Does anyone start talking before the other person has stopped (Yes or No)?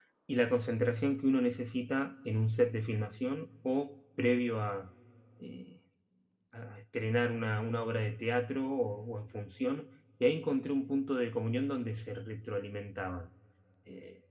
No